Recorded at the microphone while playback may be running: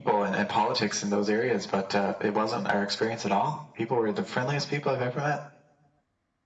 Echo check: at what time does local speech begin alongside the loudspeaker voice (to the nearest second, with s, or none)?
none